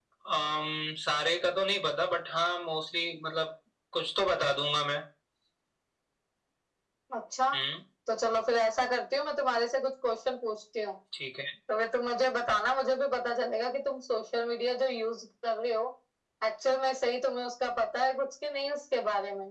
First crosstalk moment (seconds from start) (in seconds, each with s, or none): none